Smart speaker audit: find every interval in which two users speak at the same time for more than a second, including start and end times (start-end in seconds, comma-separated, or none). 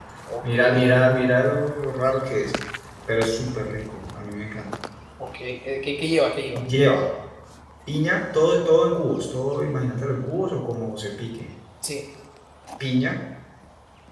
none